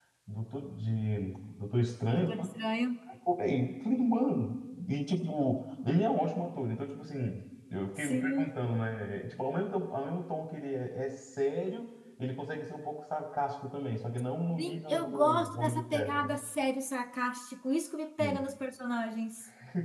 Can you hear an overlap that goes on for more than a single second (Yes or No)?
Yes